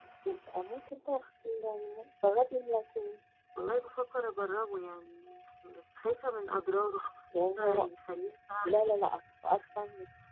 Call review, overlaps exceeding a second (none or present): none